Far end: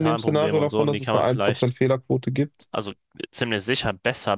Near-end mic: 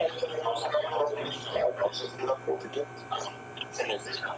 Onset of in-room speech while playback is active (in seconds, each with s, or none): none